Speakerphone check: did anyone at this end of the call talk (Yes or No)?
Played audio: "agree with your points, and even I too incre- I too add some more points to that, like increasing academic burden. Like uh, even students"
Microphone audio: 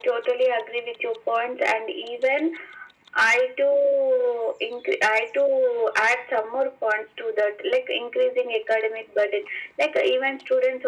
No